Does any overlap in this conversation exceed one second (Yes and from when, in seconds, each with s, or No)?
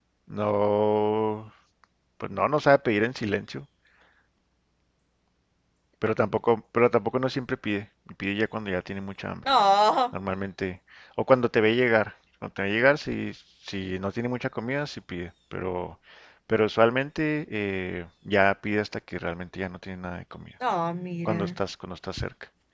No